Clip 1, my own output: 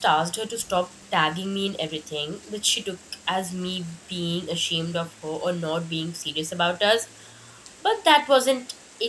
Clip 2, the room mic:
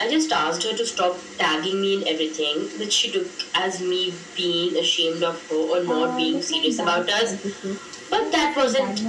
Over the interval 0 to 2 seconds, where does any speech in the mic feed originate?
echo only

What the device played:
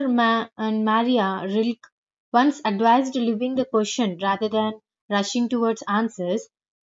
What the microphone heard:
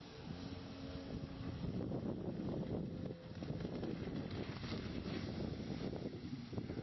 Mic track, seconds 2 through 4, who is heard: neither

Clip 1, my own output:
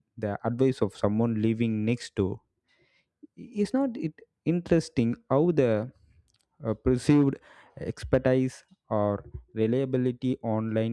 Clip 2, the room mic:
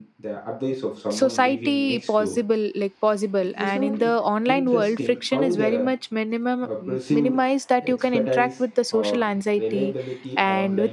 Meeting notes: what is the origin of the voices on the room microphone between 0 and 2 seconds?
both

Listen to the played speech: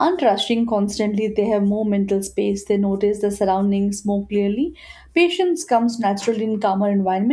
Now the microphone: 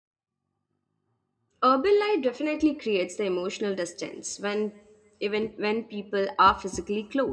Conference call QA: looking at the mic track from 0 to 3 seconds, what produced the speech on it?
user only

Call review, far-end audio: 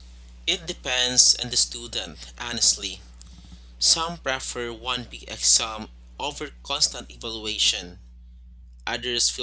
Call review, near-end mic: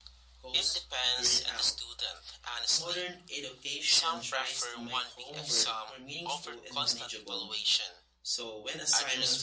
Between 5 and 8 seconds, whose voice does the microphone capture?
both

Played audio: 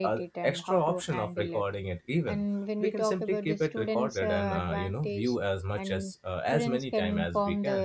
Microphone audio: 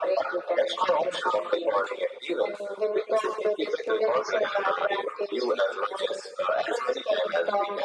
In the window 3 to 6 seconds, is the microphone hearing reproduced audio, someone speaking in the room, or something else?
echo only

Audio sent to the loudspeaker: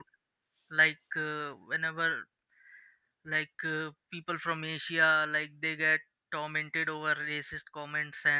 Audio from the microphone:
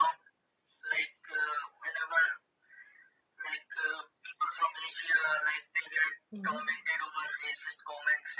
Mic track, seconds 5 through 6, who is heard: echo only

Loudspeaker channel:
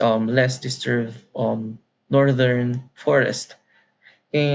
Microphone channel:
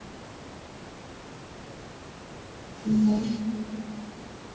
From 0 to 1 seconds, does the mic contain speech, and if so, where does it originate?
neither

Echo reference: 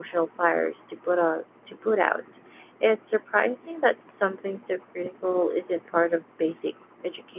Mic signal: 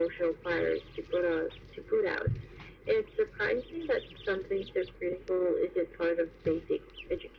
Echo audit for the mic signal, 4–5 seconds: echo only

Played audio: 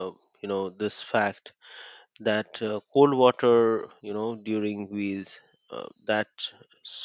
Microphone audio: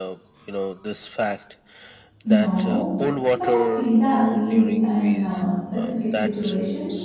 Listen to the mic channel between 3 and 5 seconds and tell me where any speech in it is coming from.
both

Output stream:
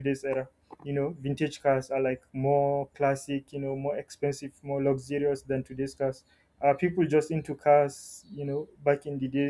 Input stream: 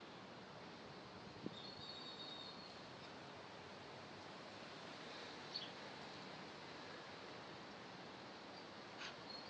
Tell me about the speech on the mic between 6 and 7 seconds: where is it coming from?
neither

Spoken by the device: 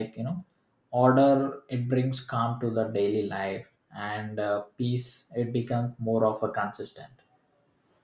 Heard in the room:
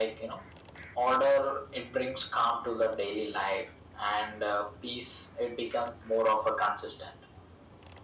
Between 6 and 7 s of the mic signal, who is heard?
echo only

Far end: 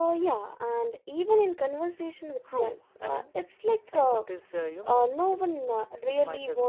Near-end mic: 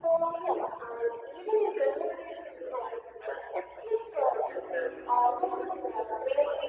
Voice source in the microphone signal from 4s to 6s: echo only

